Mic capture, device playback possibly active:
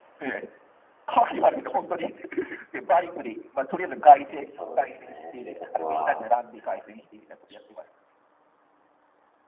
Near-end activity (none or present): present